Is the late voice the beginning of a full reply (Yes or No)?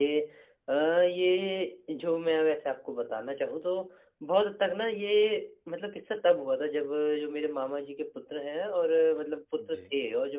No